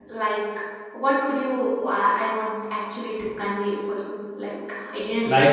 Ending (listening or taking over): taking over